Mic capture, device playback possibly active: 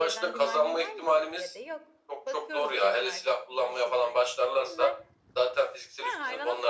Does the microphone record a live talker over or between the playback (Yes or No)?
Yes